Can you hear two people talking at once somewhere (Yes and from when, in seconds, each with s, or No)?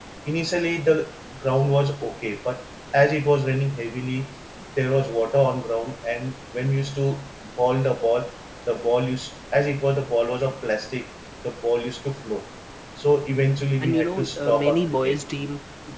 Yes, from 13.8 s